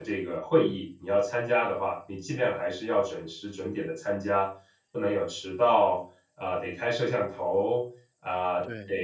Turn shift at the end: No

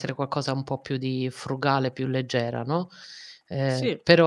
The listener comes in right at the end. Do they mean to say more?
No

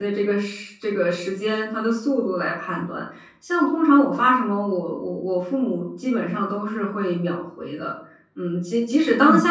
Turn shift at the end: No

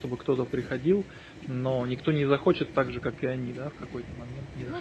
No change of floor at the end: No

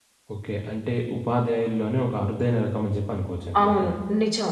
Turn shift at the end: Yes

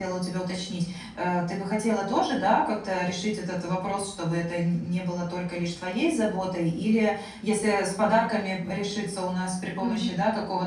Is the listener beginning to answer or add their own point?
No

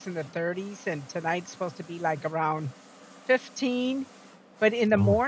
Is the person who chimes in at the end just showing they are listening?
Yes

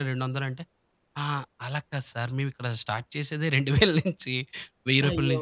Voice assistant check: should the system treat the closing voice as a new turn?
No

